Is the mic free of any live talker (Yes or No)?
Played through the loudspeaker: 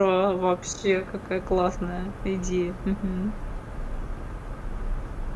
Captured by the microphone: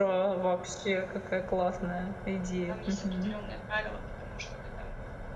No